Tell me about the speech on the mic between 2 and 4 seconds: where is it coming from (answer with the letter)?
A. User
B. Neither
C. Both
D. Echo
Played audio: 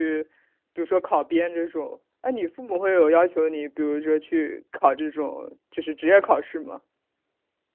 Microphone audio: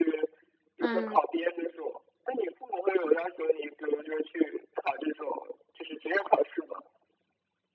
D